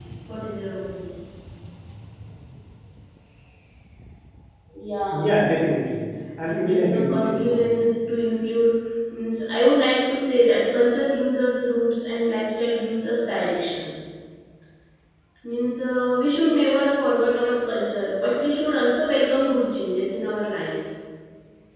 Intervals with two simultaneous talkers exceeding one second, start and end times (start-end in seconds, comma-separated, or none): 6.4-7.8